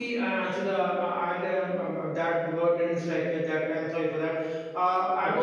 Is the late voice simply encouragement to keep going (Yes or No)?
Yes